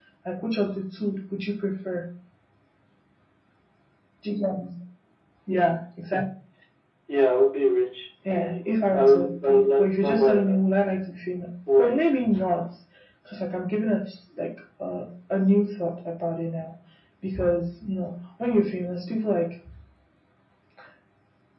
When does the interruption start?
8.3 s

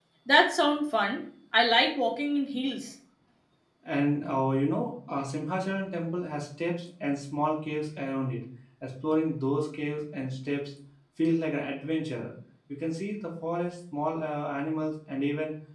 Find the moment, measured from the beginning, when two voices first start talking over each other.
none

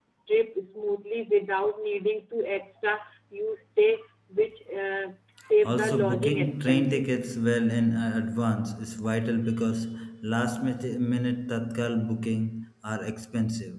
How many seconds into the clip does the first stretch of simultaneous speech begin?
5.6 s

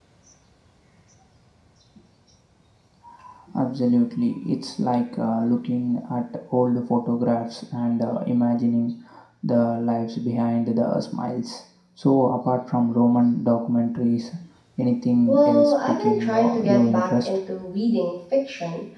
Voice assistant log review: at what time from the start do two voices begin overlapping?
15.3 s

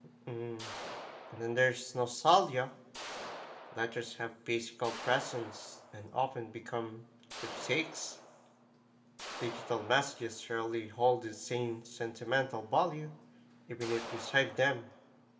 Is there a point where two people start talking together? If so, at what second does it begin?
none

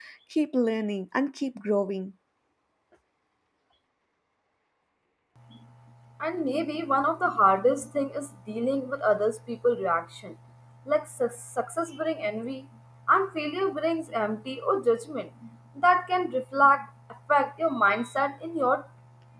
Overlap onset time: none

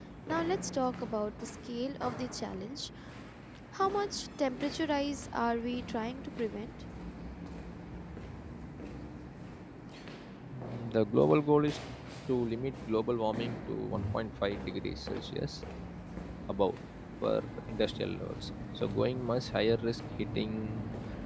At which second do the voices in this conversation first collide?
none

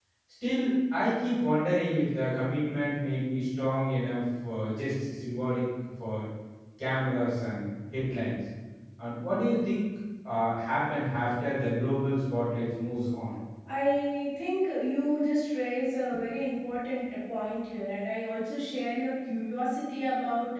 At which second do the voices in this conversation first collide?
none

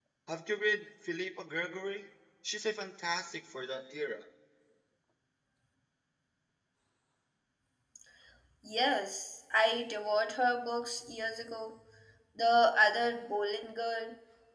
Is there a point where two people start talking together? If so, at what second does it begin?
none

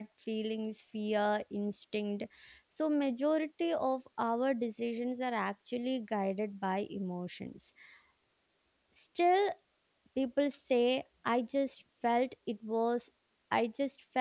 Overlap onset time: none

